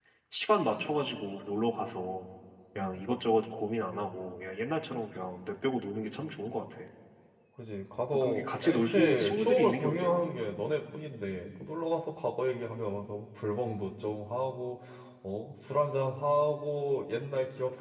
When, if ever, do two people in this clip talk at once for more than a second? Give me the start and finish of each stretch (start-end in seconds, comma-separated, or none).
8.1-10.2